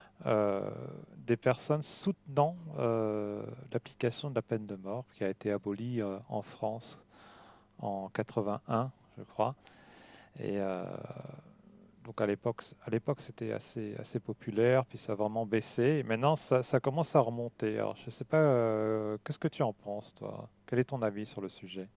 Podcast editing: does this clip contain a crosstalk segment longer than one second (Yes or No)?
No